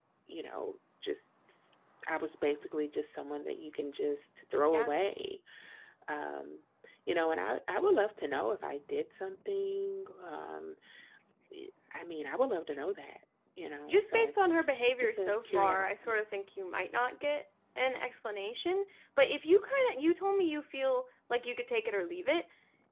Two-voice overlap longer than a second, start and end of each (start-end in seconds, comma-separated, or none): 15.0-16.2